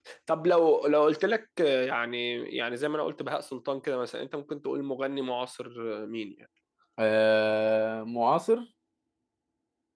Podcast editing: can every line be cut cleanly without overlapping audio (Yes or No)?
Yes